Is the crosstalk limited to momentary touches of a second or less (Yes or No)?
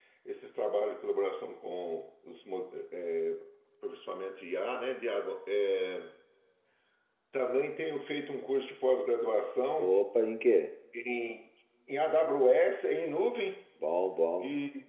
Yes